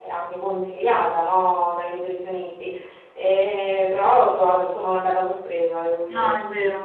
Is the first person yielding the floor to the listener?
Yes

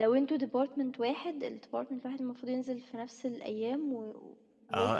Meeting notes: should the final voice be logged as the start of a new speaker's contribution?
Yes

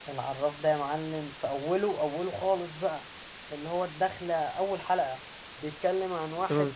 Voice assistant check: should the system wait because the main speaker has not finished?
Yes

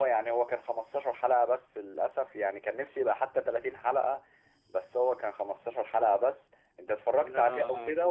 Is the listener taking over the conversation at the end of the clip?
Yes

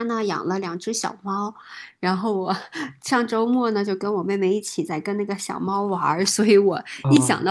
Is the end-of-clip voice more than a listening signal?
No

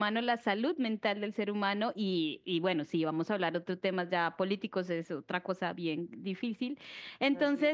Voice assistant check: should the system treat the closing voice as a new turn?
No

